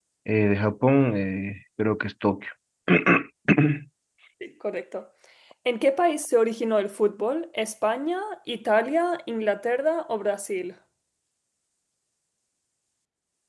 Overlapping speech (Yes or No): No